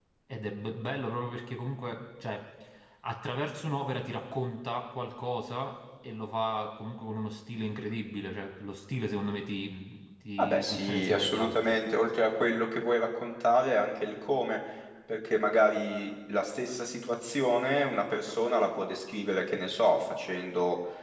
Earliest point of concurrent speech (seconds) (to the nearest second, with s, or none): 10 s